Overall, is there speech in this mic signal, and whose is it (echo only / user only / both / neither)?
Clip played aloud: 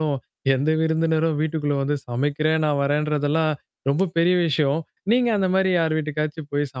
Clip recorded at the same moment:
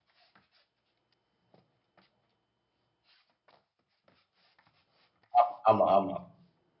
user only